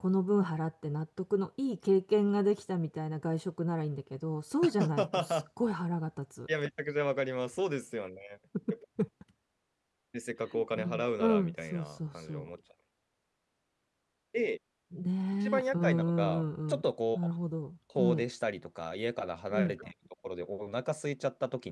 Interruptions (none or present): present